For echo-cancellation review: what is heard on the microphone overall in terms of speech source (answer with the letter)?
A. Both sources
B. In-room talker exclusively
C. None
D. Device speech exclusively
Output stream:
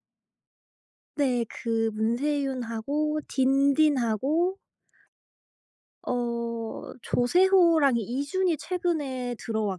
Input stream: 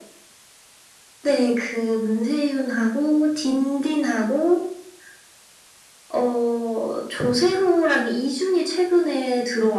D